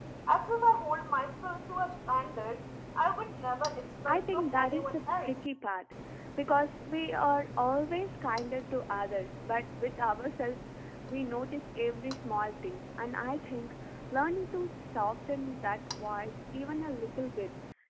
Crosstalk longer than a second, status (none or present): present